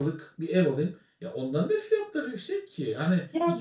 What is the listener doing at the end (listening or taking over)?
taking over